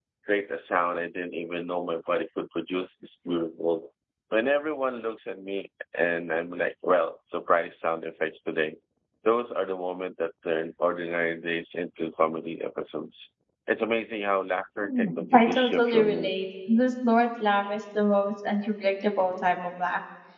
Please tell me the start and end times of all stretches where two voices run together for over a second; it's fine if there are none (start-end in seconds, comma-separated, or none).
14.8-16.4